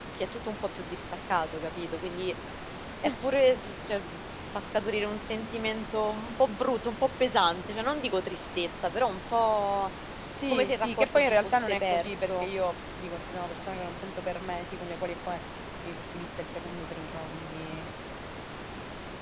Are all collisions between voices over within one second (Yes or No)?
No